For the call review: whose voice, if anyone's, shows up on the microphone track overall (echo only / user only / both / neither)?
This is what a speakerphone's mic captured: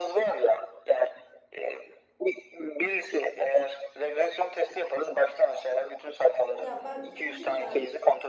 both